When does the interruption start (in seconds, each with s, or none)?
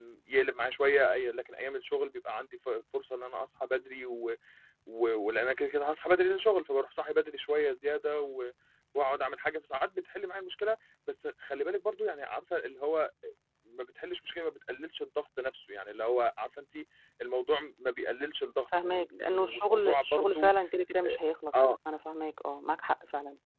18.7 s